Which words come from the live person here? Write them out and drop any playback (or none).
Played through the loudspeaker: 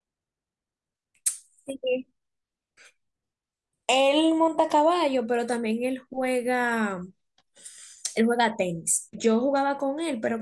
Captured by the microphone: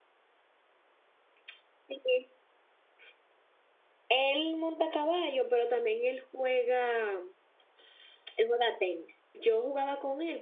none